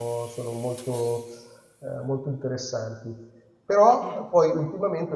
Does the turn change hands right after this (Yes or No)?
No